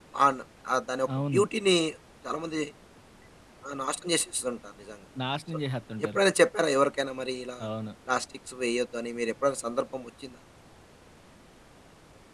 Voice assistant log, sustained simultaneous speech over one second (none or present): none